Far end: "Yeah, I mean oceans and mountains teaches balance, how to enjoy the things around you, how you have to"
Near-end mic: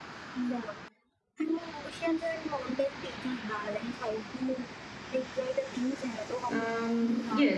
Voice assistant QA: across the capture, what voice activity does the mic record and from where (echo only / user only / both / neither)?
both